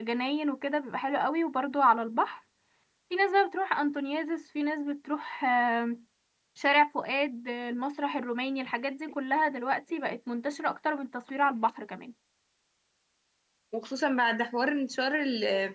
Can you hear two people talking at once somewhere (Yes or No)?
No